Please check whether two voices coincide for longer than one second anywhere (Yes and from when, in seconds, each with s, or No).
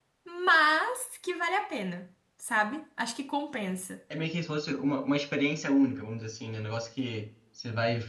No